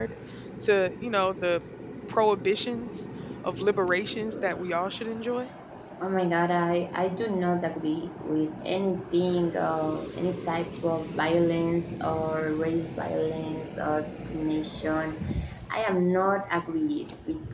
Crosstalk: none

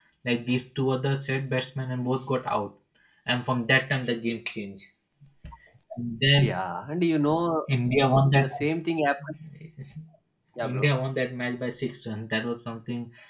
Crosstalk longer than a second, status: none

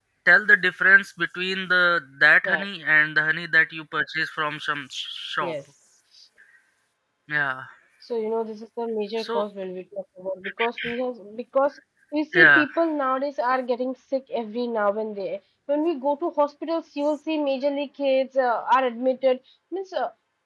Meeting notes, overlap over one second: none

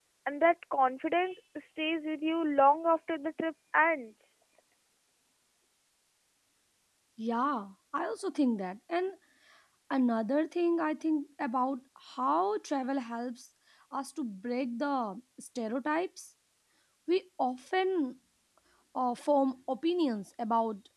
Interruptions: none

